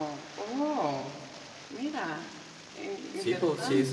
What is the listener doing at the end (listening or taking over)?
taking over